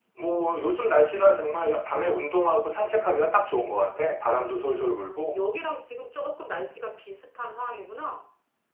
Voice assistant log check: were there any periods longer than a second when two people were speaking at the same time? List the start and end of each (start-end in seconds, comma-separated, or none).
none